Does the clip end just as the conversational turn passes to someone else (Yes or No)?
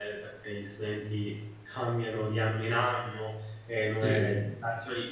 No